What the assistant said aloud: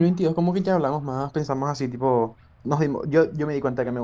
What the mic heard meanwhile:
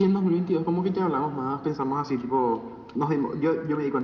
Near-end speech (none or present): none